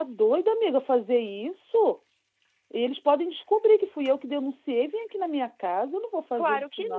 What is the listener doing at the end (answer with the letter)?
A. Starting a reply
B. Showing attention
A